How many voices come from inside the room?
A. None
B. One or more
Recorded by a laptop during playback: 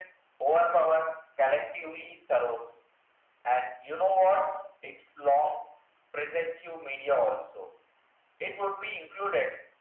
A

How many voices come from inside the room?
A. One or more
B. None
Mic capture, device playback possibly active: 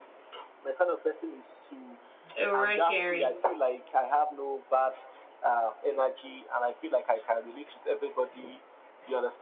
A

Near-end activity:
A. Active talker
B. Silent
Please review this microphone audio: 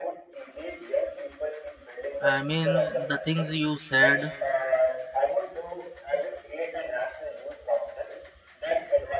A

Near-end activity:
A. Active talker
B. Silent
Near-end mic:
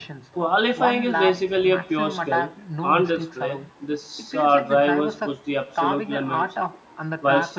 A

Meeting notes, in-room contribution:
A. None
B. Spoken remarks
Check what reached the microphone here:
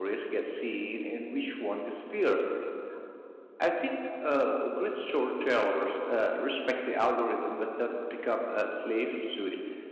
B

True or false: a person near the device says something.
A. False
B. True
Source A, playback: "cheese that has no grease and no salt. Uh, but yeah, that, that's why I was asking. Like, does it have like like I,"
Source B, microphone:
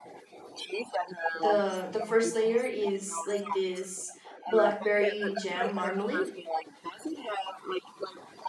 B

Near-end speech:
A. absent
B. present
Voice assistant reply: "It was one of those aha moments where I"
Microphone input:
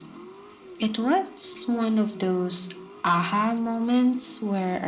A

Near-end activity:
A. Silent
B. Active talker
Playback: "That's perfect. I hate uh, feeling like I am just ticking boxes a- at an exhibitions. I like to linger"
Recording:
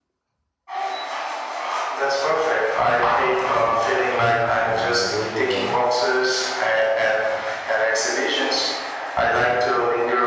B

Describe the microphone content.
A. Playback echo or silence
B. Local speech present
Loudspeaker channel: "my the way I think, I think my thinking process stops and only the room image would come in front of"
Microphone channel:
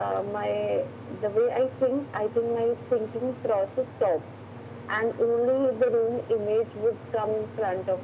A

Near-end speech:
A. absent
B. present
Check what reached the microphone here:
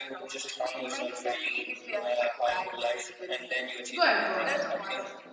B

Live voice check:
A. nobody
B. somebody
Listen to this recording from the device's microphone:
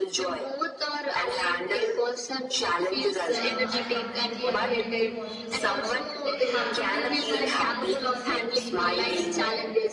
B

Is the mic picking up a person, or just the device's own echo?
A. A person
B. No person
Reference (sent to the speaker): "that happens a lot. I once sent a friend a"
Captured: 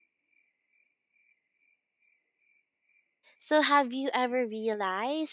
A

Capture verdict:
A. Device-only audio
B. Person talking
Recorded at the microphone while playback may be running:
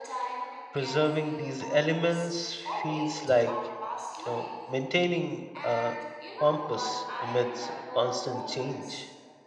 B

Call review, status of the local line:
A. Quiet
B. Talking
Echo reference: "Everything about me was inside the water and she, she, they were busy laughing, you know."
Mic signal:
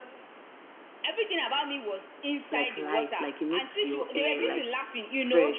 B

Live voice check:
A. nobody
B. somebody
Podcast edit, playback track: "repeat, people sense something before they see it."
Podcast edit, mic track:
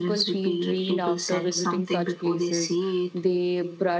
B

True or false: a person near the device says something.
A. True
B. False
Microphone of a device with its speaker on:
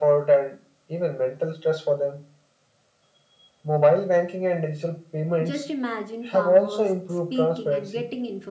A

